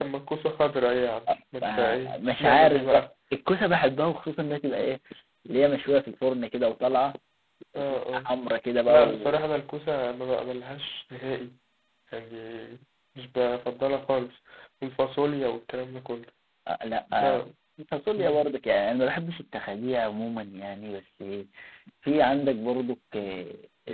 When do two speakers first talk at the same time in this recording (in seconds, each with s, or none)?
1.6 s